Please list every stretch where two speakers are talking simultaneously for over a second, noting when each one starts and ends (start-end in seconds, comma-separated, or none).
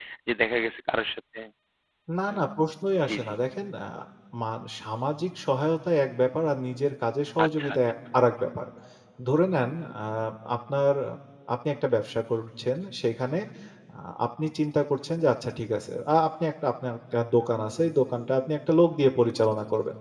none